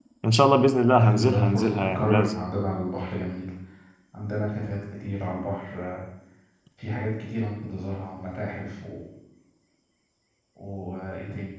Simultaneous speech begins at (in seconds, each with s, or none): 0.9 s